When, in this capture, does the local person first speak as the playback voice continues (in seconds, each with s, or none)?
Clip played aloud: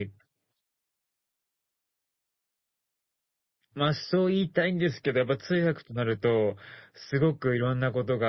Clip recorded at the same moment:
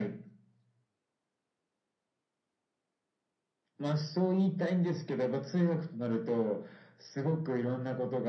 none